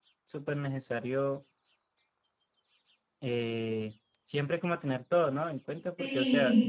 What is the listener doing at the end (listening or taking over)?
listening